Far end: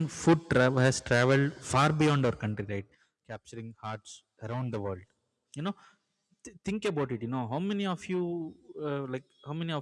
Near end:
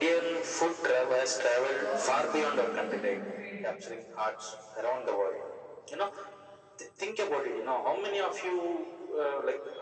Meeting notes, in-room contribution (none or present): present